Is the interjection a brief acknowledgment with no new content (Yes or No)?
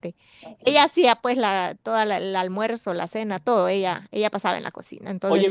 No